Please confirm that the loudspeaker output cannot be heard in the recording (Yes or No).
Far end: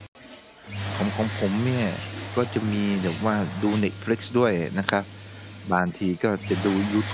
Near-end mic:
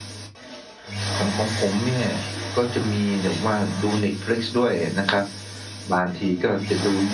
No